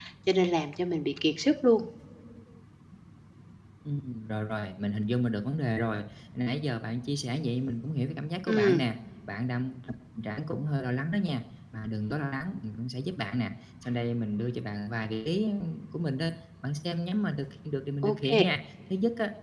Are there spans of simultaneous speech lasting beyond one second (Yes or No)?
No